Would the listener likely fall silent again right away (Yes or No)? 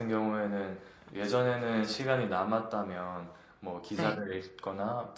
Yes